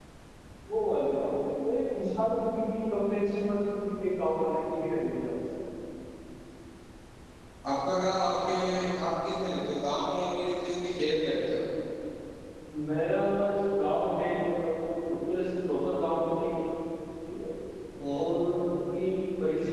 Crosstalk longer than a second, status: none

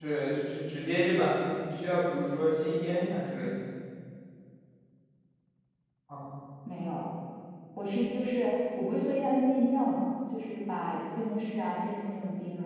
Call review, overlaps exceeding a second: none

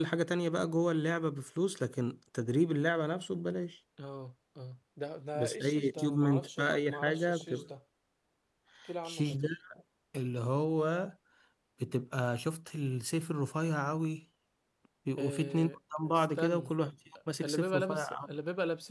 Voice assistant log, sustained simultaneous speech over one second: present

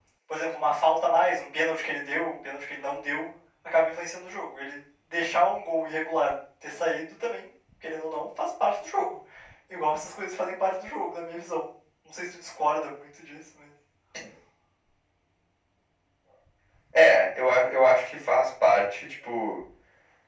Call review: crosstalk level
none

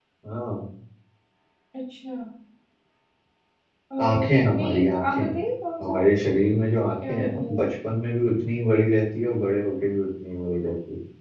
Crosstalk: present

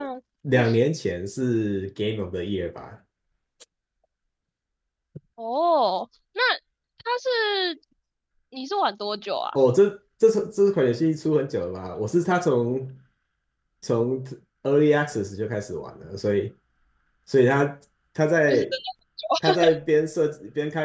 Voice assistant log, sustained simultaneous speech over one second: none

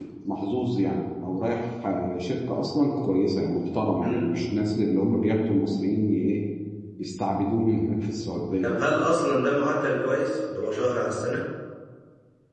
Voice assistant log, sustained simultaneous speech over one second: none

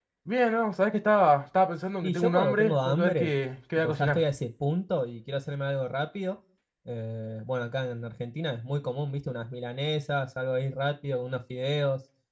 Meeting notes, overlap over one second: present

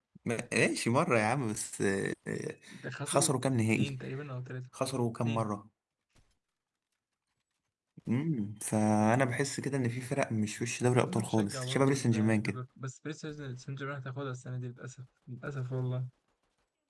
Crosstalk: present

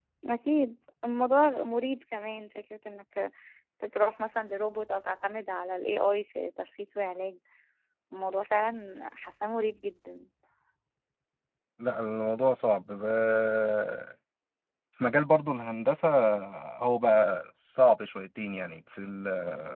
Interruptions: none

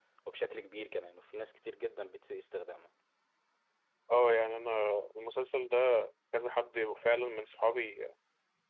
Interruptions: none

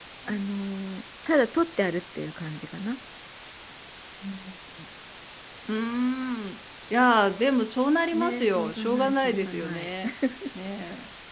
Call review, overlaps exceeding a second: present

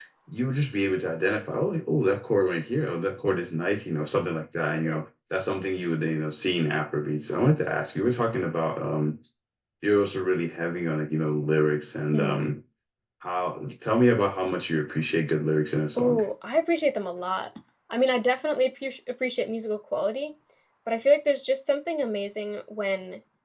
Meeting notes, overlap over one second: none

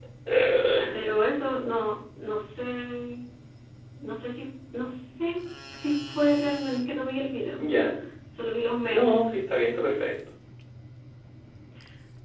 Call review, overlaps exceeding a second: none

